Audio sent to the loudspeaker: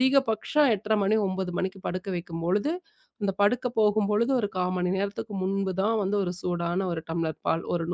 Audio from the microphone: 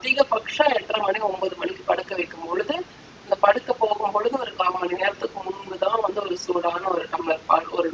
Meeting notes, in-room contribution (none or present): none